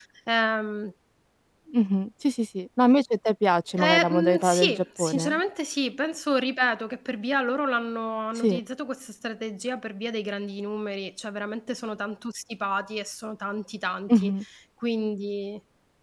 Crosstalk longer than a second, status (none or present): present